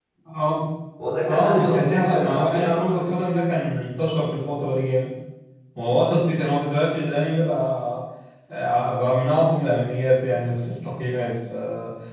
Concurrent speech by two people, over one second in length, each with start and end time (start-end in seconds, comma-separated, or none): 1.2-3.2